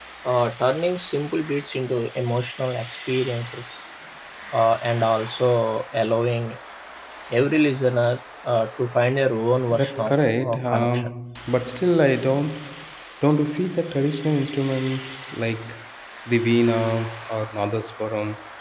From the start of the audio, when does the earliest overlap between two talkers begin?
9.7 s

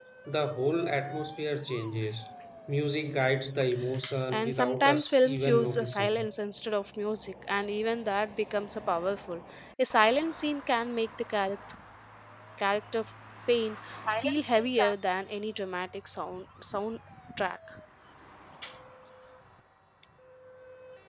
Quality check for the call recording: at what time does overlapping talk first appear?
4.3 s

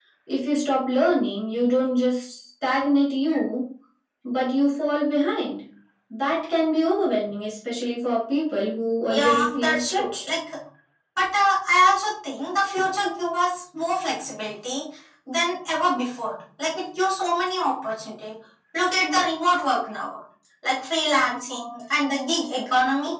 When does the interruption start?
9.1 s

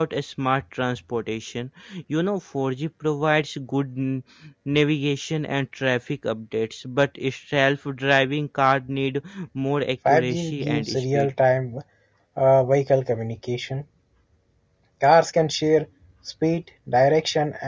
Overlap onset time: 10.0 s

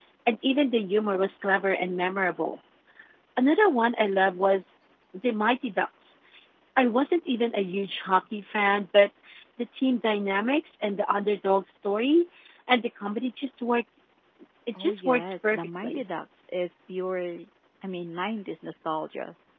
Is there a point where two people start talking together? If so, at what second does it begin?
14.8 s

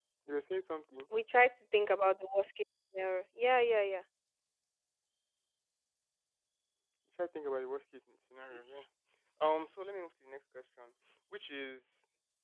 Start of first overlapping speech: none

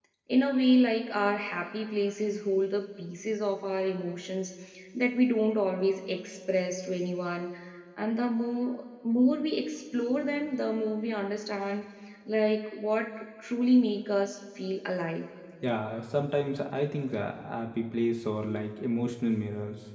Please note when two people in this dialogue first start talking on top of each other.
none

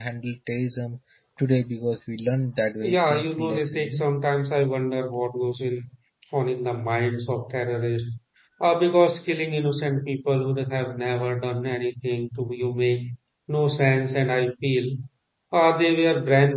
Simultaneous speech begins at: 2.8 s

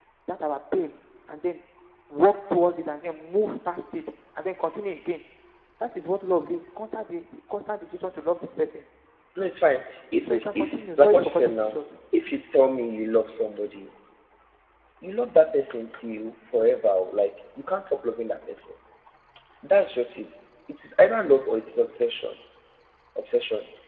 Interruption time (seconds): 10.2 s

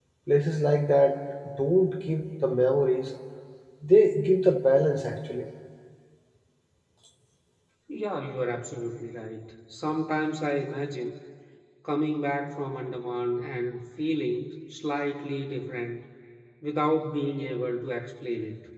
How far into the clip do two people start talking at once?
none

